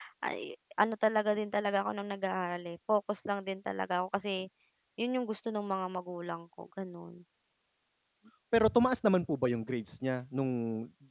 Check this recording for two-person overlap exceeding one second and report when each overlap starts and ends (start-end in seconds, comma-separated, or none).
none